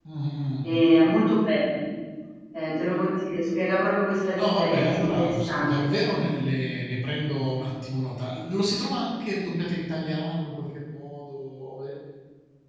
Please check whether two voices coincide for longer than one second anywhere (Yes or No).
Yes